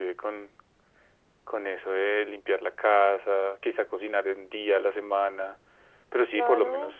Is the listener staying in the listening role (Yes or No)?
No